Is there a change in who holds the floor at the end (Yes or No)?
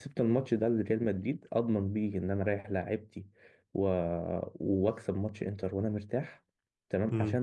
No